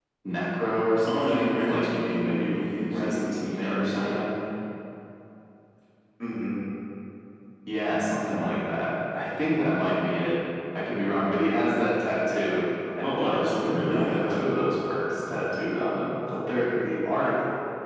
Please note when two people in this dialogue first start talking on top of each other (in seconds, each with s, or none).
1.1 s